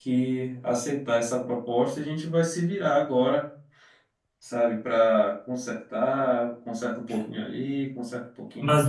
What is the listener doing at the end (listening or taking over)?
taking over